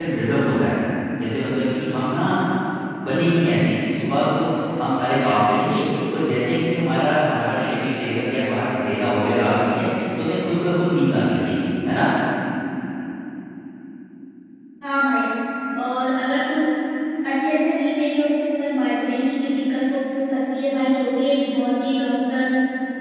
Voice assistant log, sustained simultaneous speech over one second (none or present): none